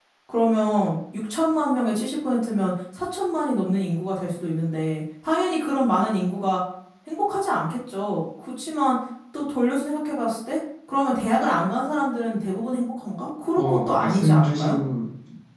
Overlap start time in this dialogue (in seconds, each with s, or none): 13.6 s